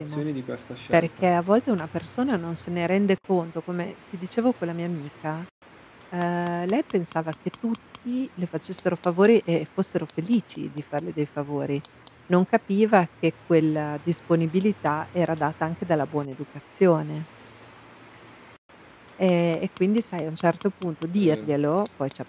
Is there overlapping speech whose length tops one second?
No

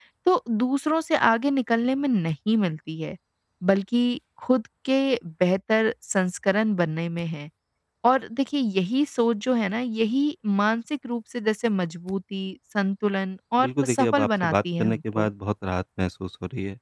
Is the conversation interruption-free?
No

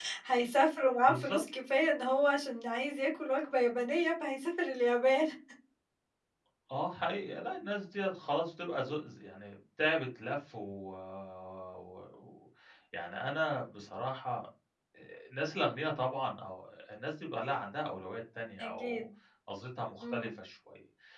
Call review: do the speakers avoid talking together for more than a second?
Yes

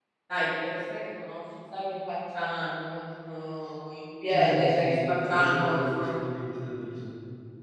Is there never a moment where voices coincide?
No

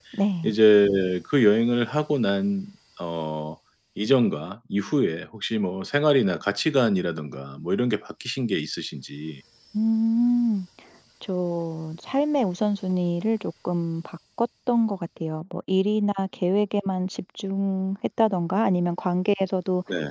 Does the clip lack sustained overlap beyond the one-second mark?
Yes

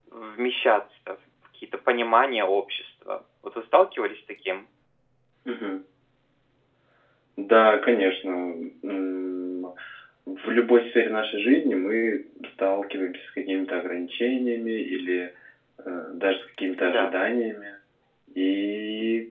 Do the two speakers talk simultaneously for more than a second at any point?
No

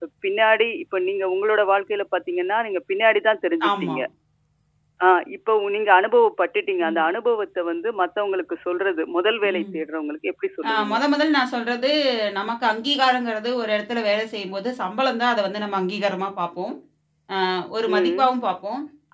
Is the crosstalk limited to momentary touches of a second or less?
Yes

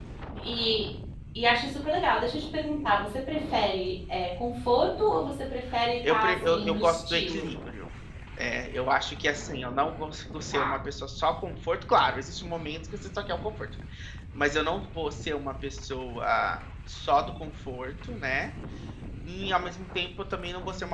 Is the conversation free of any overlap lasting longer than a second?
No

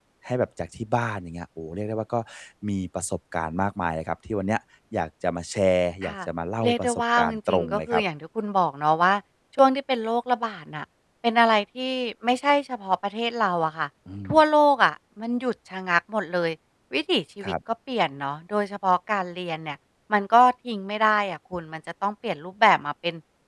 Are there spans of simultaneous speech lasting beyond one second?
Yes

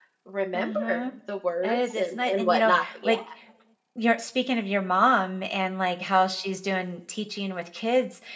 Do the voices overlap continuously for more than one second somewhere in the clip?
Yes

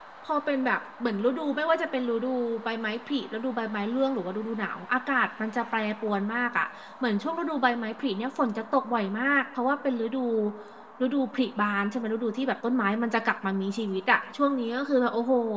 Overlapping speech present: No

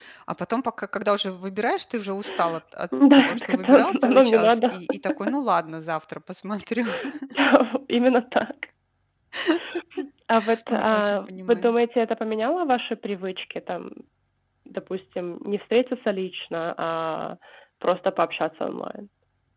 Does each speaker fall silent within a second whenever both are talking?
No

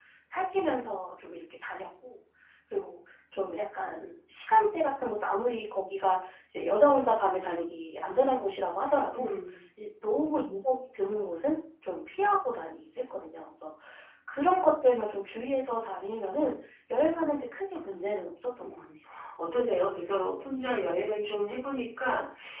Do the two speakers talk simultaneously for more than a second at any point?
No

